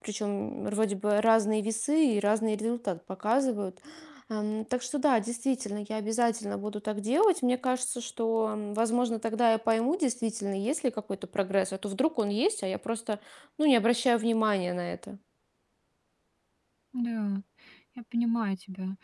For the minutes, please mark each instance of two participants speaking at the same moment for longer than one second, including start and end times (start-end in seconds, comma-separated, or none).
none